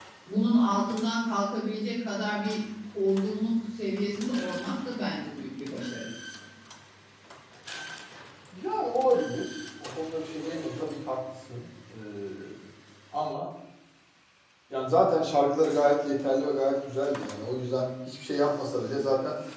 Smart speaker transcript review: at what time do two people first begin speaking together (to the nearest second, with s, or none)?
none